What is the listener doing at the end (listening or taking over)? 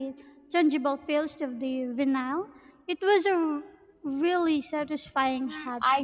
taking over